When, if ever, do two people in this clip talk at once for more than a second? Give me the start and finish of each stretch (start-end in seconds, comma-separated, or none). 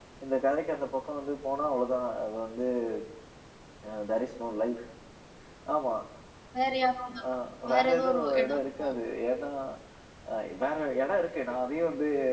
7.7-9.0